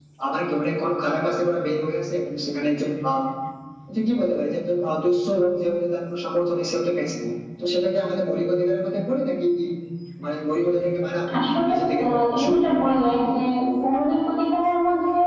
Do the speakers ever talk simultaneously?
Yes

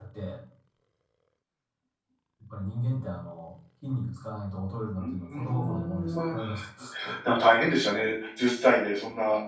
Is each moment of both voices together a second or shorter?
No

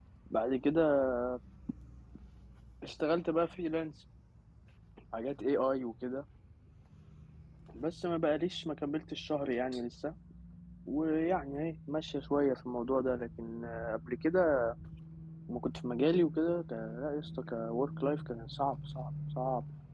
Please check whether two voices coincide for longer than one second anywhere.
No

